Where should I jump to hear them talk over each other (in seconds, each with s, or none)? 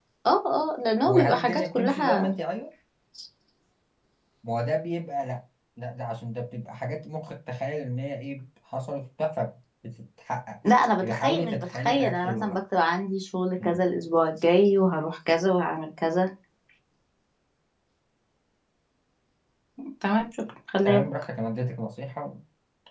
1.0 s